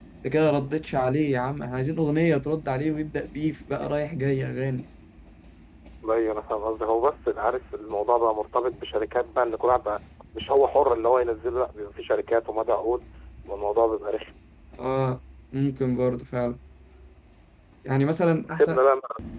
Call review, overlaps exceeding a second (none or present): none